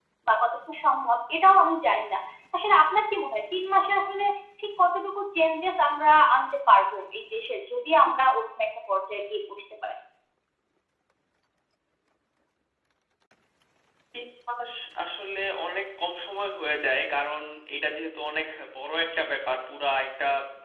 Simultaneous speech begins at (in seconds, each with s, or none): none